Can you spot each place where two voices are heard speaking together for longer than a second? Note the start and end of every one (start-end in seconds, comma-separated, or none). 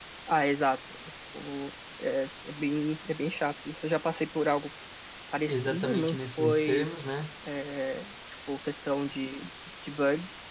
5.5-6.9